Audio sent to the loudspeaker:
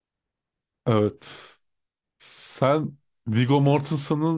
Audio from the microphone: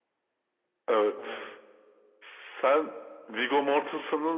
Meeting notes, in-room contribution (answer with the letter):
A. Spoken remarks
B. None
A